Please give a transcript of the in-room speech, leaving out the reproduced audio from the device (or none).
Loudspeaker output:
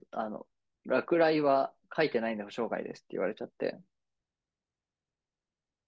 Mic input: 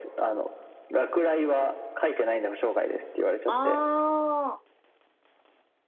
あ